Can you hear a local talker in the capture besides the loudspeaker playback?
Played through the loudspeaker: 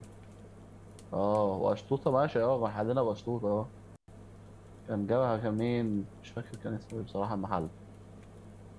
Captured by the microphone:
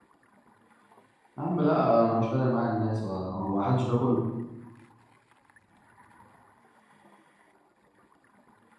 Yes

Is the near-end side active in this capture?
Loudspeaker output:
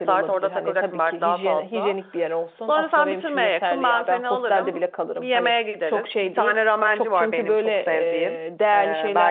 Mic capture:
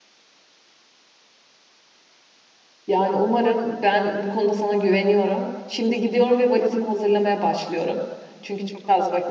Yes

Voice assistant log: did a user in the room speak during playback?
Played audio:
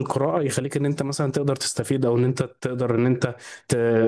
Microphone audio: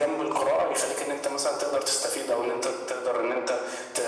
No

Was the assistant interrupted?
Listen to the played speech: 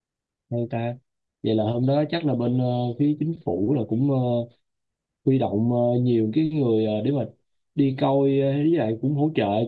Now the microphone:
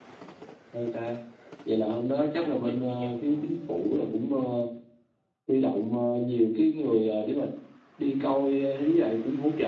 Yes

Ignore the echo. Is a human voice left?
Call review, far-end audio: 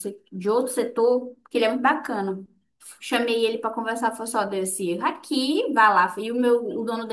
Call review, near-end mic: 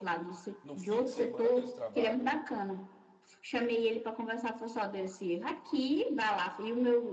Yes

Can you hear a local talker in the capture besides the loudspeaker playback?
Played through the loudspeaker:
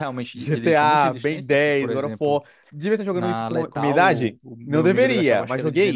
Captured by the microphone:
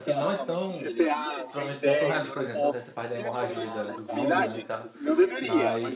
Yes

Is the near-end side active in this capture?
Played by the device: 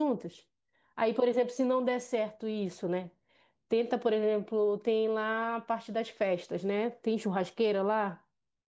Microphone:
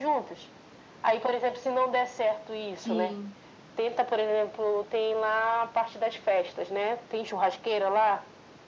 Yes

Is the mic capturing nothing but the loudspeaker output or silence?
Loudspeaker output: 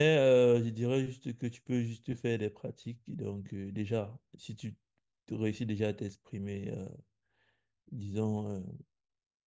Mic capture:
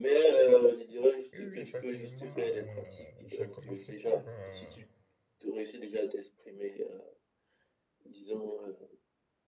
No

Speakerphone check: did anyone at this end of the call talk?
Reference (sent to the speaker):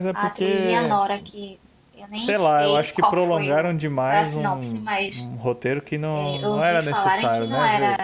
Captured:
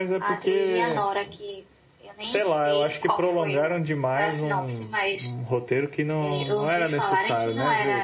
No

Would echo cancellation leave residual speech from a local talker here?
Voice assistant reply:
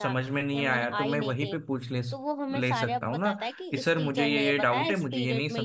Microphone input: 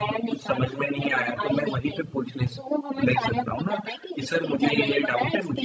No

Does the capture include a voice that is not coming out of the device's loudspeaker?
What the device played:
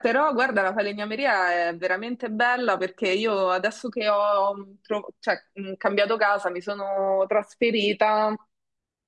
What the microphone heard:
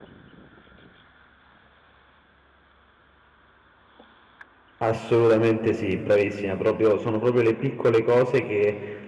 Yes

